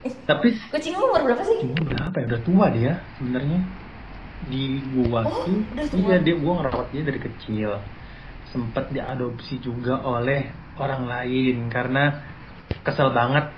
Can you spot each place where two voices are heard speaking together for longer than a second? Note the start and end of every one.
none

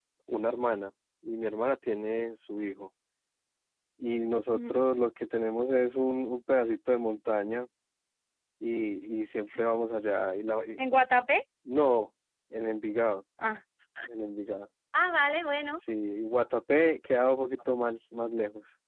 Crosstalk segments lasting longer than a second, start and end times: none

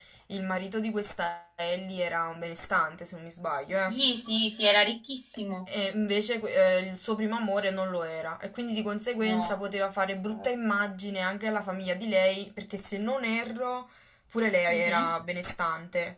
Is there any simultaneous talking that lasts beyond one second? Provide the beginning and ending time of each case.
none

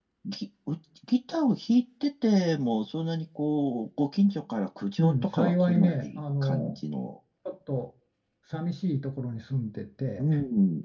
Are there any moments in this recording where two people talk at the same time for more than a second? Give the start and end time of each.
5.0-6.8

